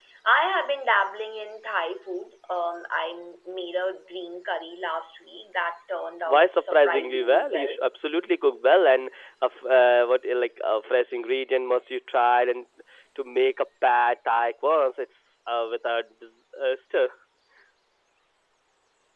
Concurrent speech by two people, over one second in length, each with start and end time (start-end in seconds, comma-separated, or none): 6.2-7.8